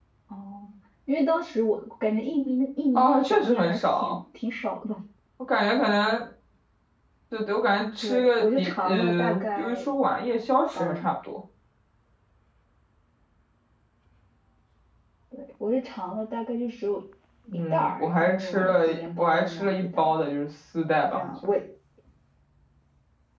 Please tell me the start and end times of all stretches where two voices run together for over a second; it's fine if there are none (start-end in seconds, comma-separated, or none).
3.0-4.2, 8.0-9.8, 17.5-20.1